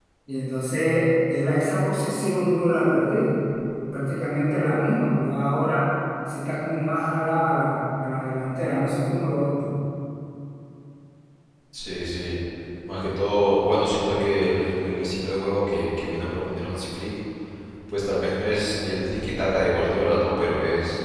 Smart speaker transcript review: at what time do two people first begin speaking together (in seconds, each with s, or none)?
none